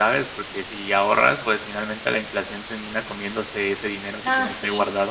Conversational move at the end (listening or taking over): taking over